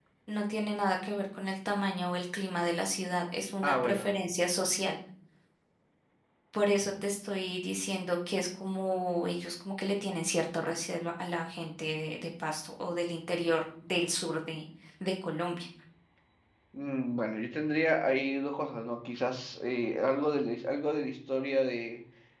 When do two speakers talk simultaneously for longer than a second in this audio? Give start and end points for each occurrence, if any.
none

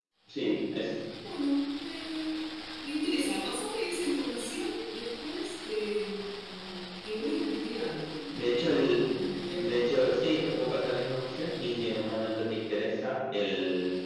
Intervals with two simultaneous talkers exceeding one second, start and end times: none

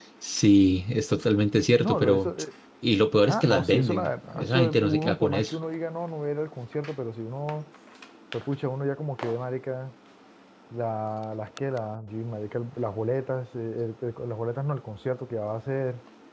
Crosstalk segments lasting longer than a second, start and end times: 3.3-5.6

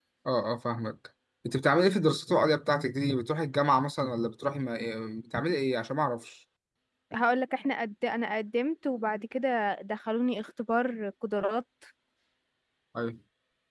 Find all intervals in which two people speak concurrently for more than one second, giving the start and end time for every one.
none

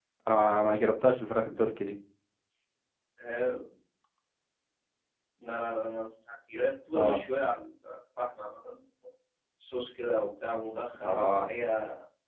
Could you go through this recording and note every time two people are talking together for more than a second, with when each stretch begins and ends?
none

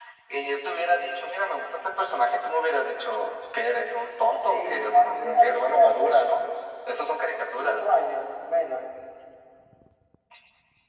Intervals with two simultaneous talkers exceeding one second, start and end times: 4.5-6.2

